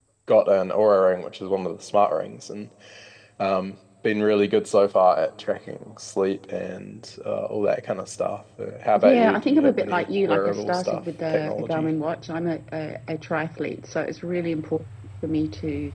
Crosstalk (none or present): present